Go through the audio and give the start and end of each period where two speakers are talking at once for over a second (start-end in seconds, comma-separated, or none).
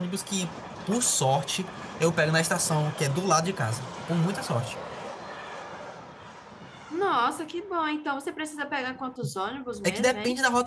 none